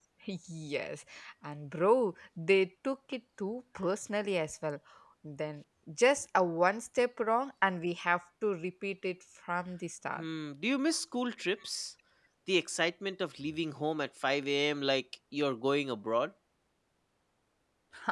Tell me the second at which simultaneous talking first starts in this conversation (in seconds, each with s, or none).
none